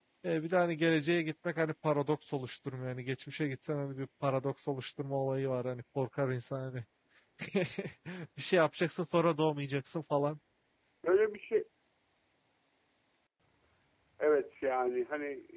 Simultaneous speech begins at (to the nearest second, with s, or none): none